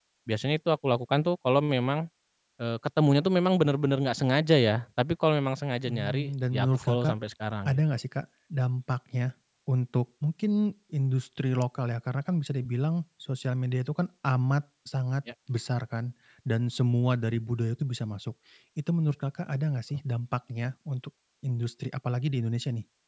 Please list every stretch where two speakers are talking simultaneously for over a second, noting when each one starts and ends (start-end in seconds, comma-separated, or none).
5.8-7.1